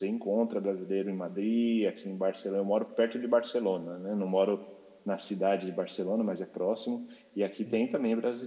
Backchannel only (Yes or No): Yes